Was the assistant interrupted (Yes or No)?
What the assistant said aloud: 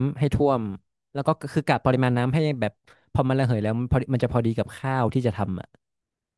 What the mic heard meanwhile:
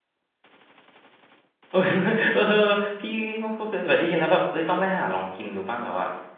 Yes